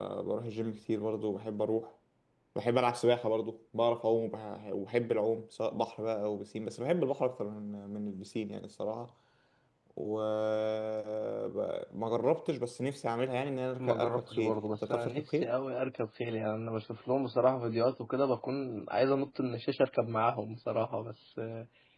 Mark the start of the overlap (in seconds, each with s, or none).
13.8 s